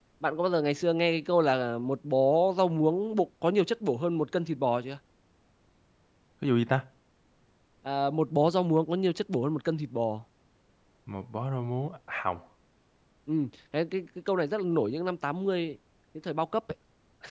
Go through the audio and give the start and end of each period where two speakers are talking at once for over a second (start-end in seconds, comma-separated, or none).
none